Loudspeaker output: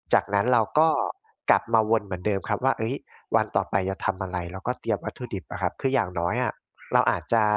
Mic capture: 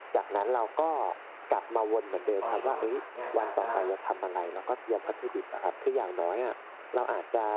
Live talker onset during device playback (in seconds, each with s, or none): 2.4 s